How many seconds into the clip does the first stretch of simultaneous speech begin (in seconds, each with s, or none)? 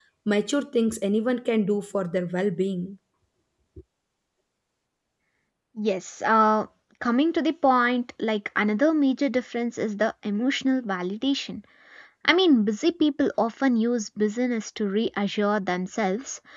none